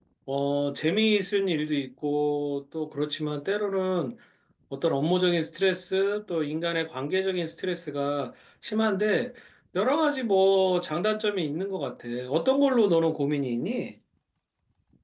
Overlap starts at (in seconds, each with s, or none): none